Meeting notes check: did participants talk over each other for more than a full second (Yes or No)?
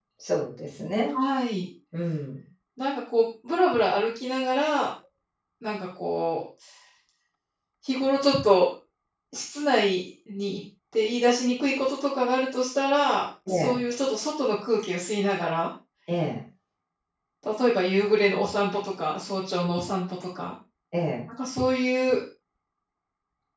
No